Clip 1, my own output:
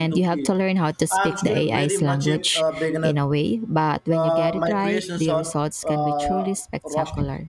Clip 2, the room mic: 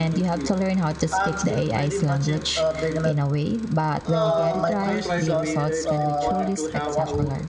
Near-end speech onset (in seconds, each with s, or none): 4.0 s